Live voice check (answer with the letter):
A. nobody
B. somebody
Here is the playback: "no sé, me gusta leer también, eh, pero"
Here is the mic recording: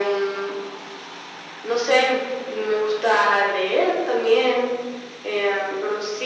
A